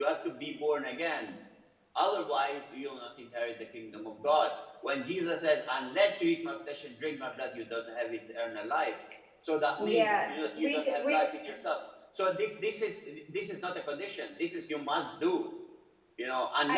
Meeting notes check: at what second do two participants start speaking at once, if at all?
9.8 s

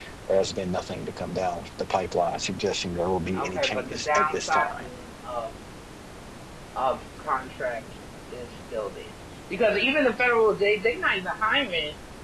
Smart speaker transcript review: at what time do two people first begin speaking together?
3.3 s

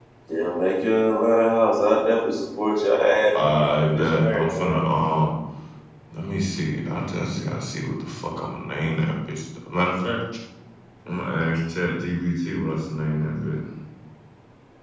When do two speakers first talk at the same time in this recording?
3.4 s

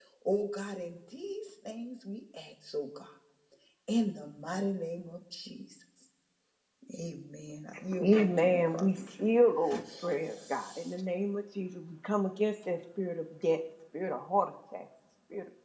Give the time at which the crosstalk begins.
8.0 s

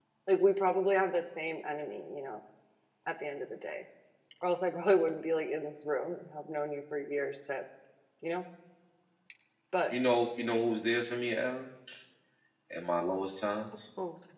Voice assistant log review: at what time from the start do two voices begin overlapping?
none

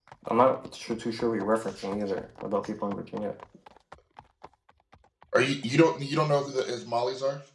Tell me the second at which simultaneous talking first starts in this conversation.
none

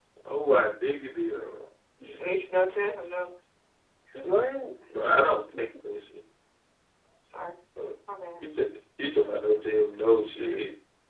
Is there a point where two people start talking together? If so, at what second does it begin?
none

